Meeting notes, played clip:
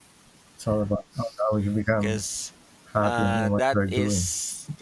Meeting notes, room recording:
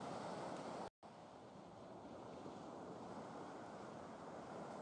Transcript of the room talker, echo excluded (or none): none